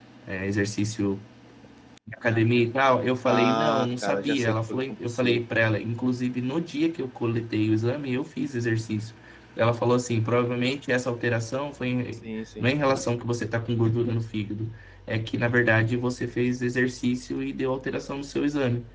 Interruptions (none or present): present